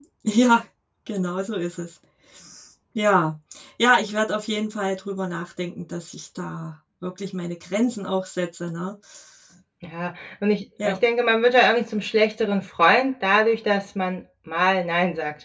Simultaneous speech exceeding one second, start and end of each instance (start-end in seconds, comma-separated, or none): none